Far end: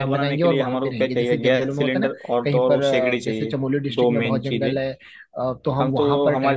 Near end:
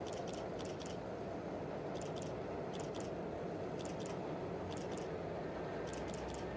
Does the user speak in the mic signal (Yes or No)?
No